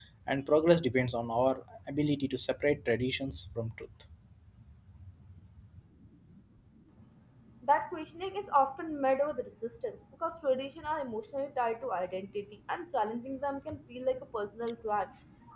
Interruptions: none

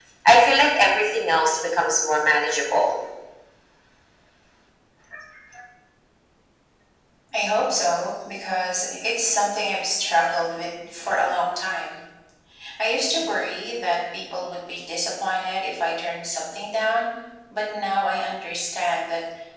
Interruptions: none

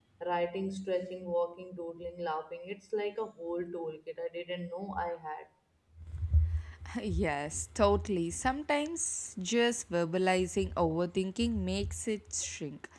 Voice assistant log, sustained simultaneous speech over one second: none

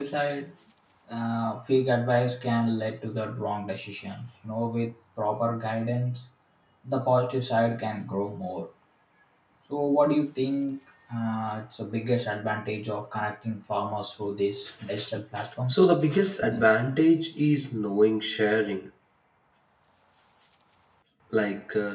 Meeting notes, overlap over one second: none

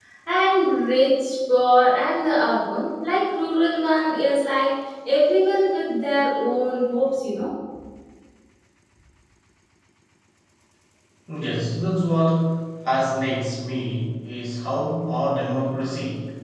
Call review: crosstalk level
none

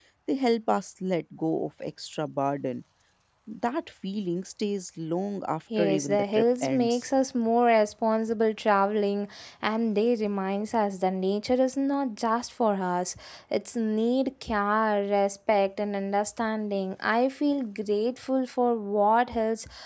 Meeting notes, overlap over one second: present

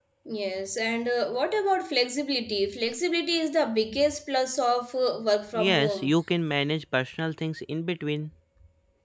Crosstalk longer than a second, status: none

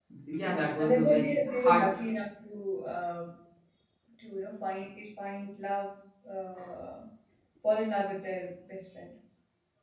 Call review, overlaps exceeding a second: present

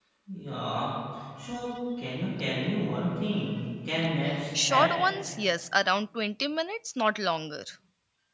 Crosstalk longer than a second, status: none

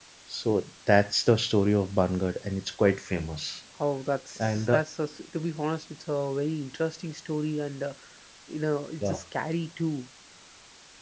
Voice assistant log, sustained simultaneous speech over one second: none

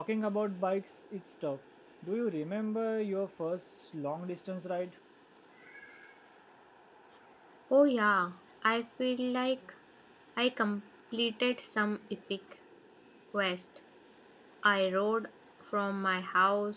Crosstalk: none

